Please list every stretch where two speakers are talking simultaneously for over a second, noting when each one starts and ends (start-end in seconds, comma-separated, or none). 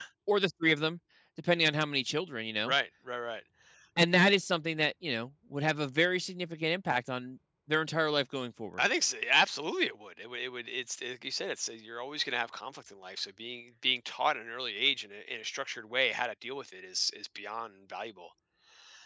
none